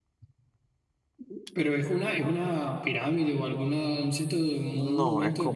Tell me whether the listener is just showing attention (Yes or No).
No